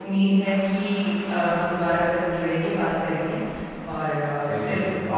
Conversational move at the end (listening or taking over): listening